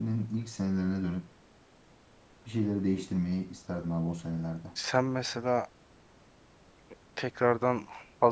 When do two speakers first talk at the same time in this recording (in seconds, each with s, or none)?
none